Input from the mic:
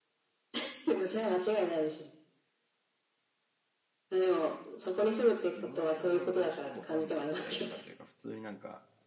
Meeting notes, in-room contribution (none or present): present